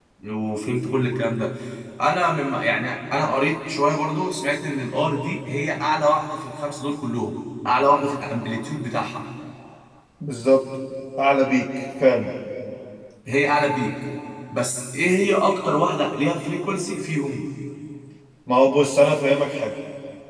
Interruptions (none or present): none